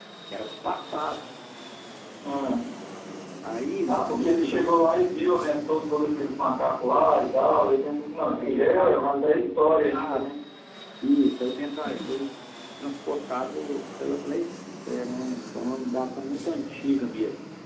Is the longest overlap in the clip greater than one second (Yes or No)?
Yes